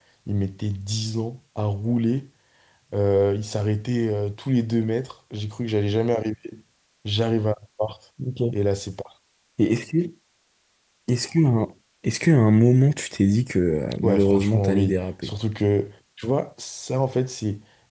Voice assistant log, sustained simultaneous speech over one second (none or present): present